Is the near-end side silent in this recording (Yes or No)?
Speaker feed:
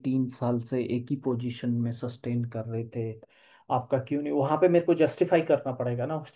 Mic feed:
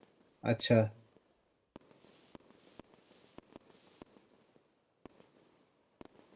No